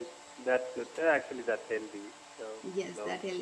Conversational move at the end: taking over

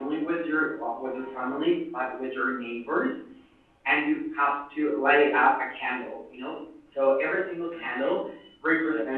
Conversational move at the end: listening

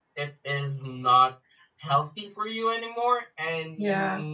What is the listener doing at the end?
listening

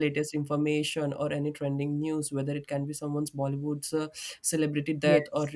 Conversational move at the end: listening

